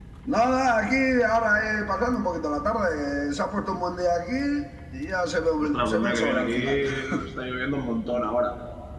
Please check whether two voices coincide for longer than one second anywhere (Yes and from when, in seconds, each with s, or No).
Yes, from 5.6 s